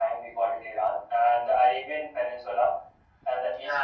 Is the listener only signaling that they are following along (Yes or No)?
Yes